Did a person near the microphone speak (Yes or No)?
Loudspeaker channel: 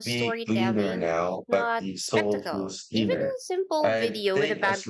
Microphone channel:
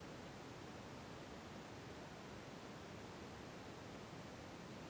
No